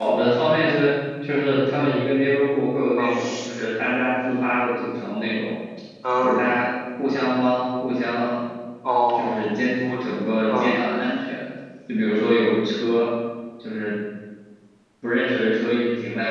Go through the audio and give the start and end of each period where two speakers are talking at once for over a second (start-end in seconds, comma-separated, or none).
none